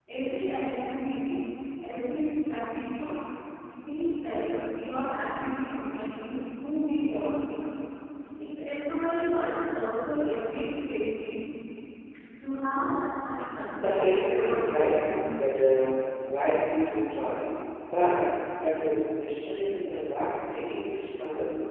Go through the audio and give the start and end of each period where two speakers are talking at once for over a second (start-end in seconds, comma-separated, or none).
13.8-15.5